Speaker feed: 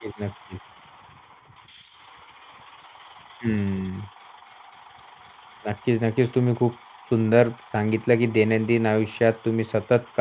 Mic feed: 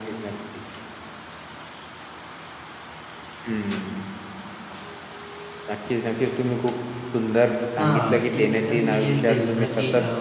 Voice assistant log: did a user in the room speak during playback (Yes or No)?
Yes